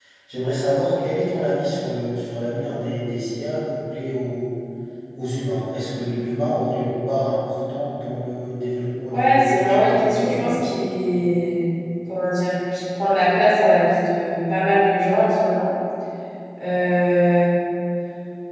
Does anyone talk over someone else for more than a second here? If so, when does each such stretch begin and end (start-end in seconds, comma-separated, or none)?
9.1-10.7